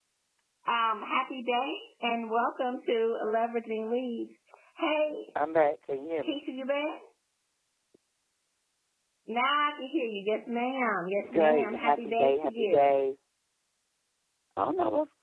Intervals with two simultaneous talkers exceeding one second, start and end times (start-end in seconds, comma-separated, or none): 11.2-12.9